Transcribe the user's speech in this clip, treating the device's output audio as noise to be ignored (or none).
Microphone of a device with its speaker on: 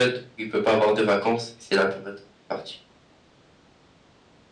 none